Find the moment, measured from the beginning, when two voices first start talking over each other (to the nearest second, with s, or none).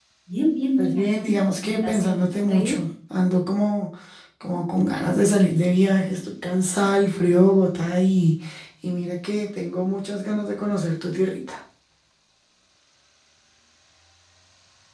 1 s